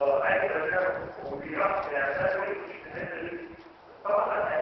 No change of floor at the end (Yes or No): No